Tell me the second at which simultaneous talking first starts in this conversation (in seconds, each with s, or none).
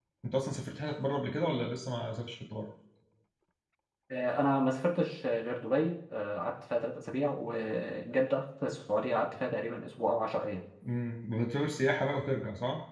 none